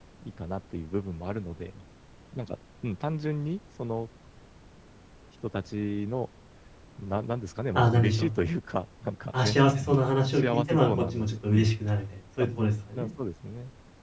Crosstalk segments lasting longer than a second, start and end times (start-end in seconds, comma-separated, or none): 9.4-11.7